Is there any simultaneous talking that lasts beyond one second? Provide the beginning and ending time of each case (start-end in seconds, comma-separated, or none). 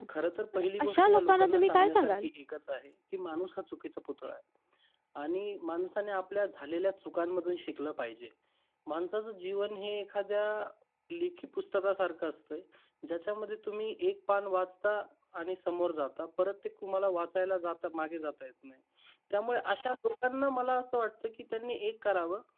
0.5-2.2